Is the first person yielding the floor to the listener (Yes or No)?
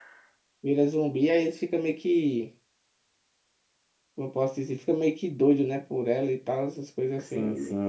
Yes